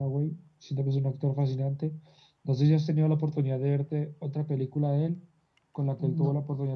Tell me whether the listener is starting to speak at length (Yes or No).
No